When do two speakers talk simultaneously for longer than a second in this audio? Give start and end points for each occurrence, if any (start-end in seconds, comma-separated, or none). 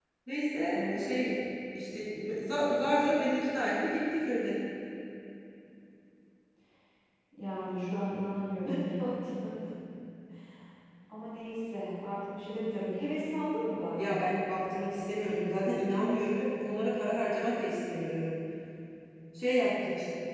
none